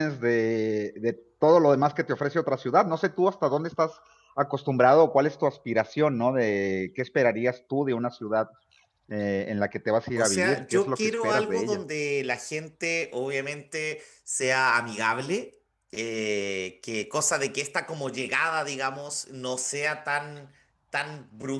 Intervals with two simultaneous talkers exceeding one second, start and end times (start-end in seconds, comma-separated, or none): 10.2-11.8